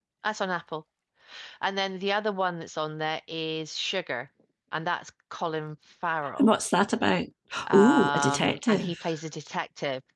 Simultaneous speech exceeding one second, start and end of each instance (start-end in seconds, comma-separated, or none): 7.7-9.0